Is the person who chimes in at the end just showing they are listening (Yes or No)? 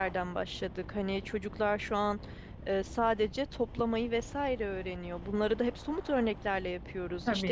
Yes